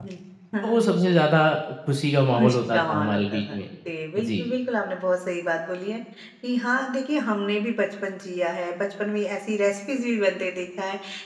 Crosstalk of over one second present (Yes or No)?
Yes